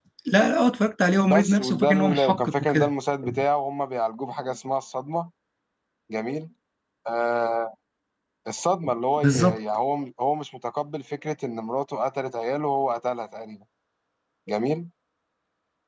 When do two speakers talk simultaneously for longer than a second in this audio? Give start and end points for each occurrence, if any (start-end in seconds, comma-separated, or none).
1.2-2.9